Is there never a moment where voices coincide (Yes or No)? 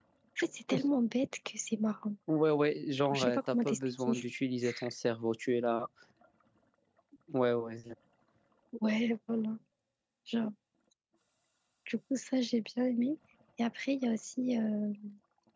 No